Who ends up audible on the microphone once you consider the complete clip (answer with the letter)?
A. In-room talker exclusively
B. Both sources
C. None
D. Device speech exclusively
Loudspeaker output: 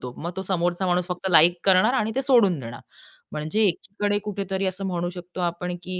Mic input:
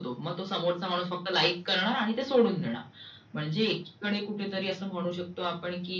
D